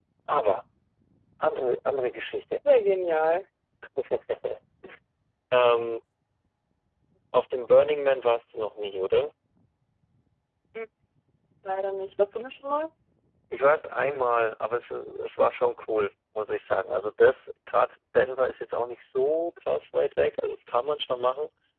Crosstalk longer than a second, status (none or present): none